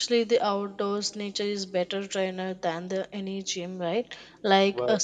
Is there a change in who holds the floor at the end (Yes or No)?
No